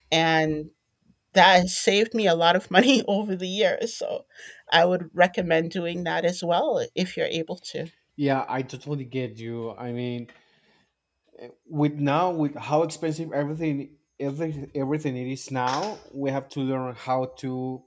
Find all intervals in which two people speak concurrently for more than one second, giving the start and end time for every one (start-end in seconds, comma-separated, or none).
none